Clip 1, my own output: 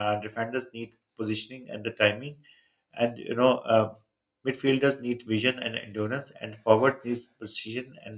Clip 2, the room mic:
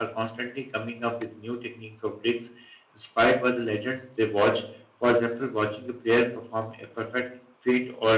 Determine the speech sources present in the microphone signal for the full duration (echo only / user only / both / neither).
user only